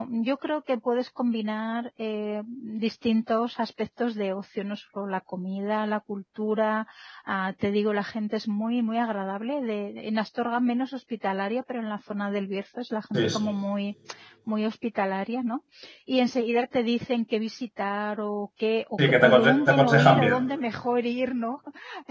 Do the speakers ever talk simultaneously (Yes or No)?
Yes